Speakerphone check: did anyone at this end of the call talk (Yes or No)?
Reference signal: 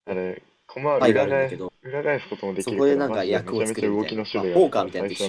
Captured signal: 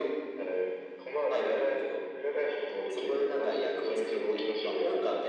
No